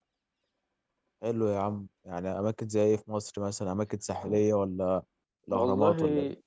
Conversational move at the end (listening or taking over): taking over